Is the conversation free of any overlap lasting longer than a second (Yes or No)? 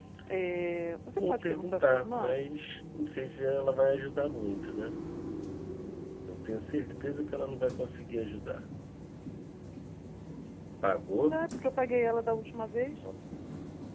No